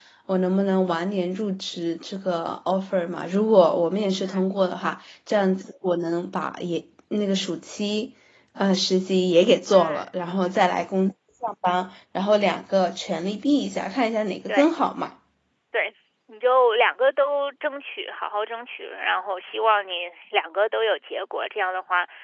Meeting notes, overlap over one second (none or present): none